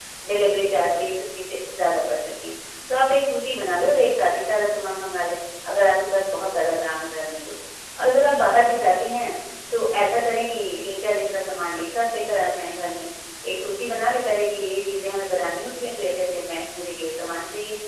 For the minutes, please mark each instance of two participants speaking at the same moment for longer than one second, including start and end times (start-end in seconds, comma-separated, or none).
none